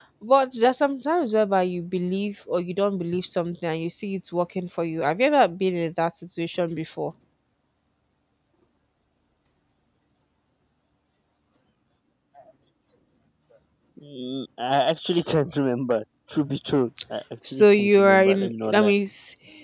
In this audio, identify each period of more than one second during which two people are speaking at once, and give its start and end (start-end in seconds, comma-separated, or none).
17.5-18.9